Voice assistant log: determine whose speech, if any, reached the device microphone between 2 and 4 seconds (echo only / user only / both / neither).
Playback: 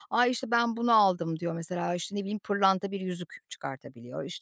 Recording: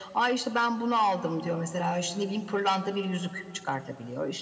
echo only